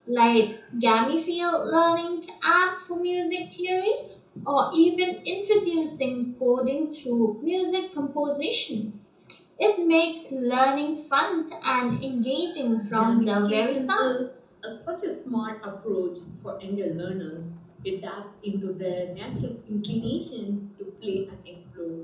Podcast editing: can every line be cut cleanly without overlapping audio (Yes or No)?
No